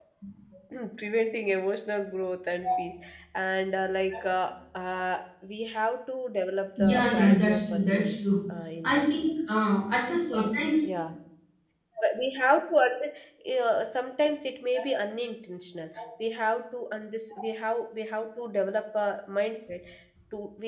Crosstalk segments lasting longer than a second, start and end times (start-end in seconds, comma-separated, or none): 6.8-8.3